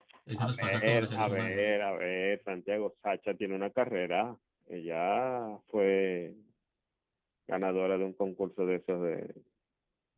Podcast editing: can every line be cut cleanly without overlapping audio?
No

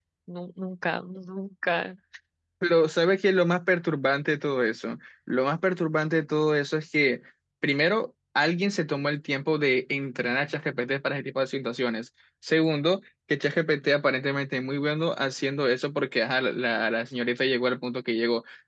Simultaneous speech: No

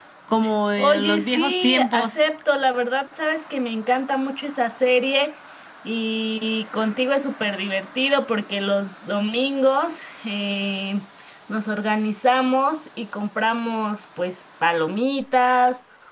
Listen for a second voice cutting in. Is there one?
Yes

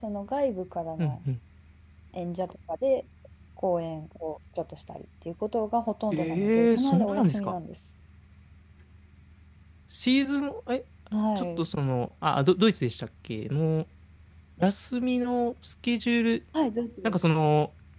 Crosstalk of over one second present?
Yes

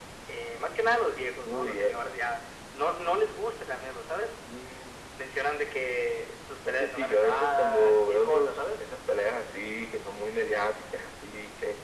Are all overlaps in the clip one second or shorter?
No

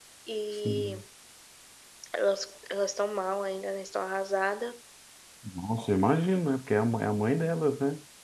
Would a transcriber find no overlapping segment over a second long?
Yes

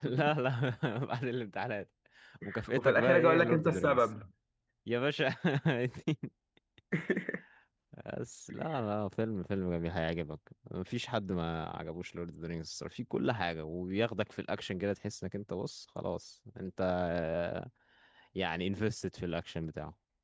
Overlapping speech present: Yes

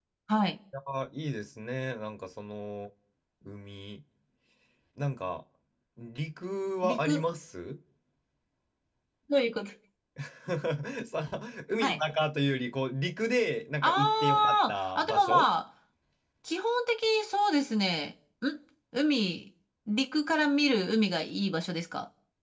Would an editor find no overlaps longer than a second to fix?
No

